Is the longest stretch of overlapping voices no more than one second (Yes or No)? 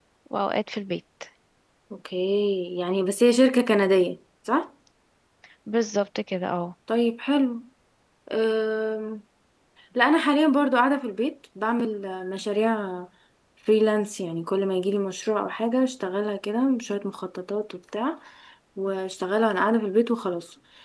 Yes